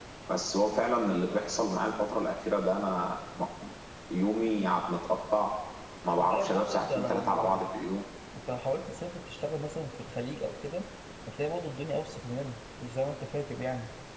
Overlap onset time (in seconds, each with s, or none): 6.2 s